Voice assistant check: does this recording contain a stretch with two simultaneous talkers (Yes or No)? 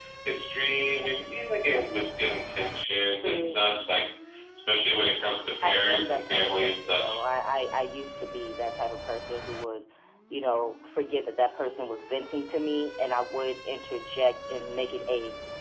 Yes